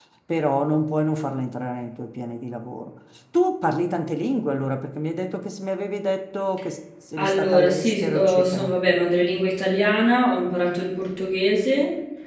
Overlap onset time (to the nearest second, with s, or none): 7 s